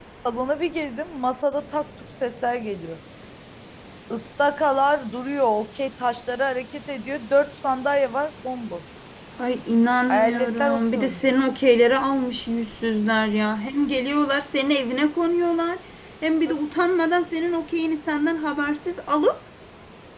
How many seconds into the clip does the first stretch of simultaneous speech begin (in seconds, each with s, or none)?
10.1 s